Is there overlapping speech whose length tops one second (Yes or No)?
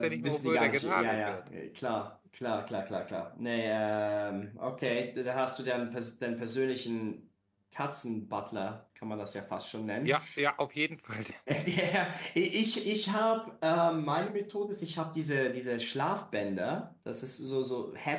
Yes